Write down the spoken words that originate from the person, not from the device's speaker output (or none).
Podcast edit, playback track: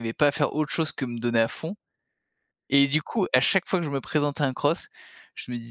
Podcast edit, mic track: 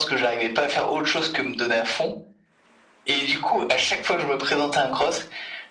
none